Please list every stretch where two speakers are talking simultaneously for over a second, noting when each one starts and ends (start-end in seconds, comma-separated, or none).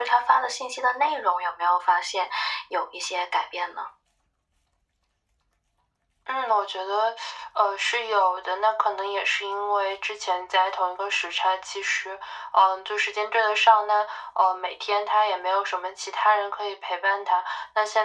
none